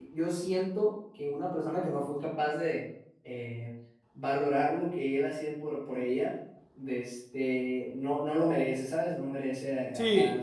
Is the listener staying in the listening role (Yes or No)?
No